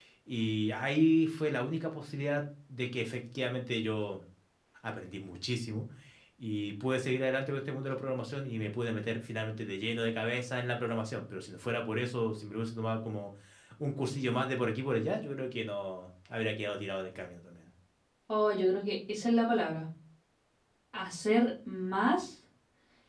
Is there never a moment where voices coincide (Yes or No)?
Yes